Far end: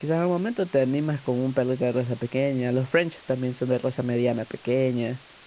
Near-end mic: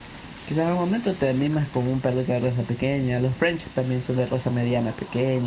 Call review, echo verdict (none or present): present